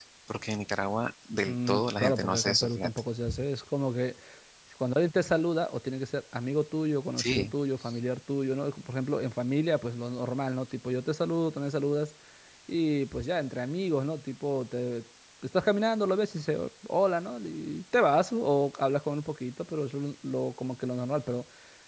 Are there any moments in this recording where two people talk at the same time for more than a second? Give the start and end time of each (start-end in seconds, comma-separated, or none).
1.4-2.9